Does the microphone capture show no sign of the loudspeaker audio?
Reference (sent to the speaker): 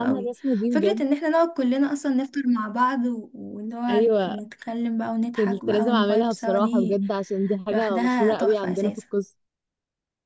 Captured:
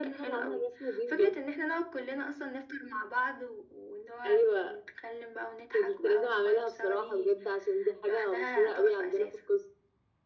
No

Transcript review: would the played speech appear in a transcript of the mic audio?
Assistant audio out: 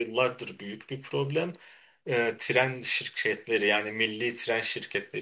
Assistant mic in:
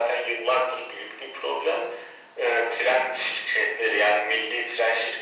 Yes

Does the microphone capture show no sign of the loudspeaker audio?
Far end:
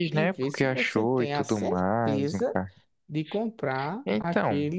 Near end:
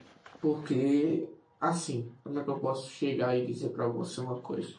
Yes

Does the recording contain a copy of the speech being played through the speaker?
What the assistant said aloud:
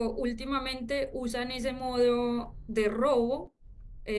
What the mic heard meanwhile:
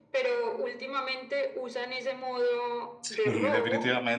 Yes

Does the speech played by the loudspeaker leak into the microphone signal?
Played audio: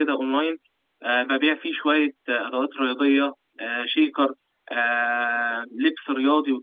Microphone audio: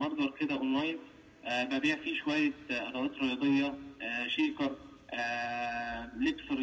Yes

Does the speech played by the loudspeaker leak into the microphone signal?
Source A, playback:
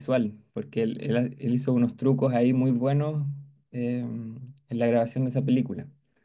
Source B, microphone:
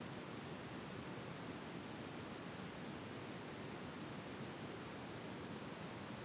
No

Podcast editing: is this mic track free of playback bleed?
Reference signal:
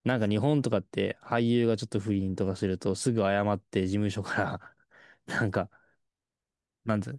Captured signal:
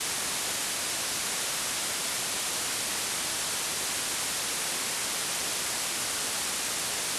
Yes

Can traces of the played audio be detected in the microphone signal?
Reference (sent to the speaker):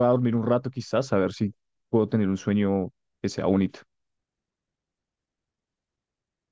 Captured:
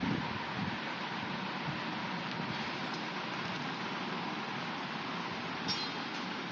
No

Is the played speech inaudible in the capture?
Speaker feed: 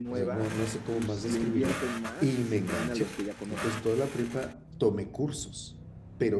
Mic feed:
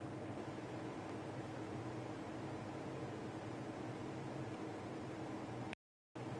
Yes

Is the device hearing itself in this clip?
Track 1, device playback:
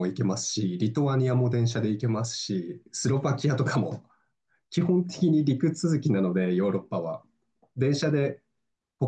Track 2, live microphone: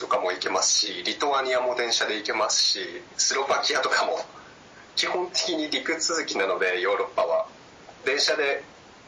Yes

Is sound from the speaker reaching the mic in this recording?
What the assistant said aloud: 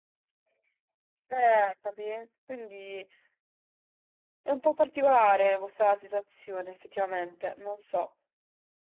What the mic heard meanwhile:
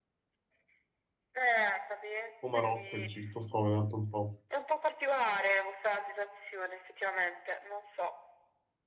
Yes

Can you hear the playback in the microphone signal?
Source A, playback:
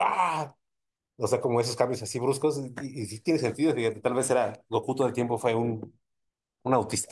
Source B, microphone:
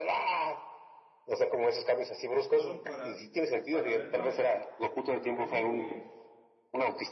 Yes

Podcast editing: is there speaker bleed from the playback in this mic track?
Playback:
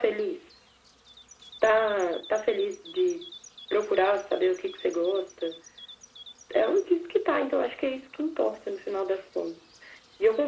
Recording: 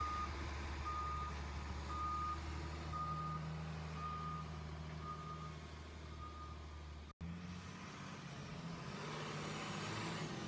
No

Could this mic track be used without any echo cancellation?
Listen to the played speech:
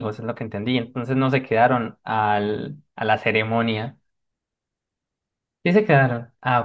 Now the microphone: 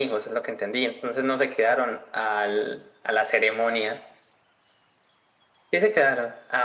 No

